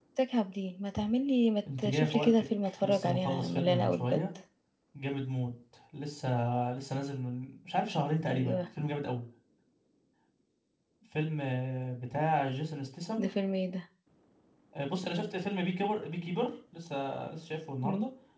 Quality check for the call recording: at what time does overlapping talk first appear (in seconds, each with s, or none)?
1.8 s